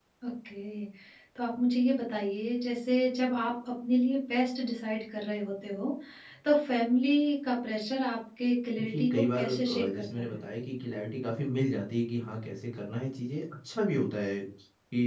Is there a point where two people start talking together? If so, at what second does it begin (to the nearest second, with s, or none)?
9 s